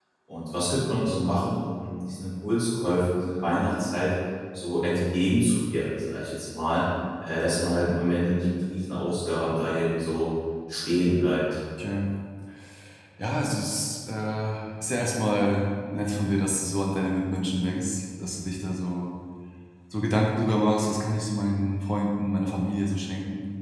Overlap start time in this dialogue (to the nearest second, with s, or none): none